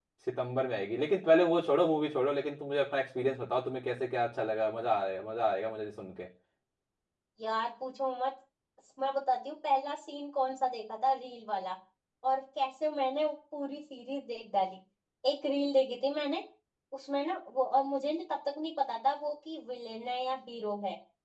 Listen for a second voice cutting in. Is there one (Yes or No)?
No